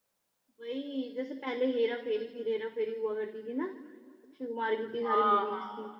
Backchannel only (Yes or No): No